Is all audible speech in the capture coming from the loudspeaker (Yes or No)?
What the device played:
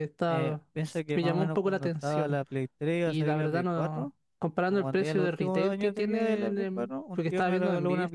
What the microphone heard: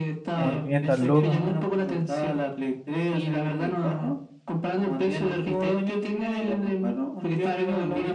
No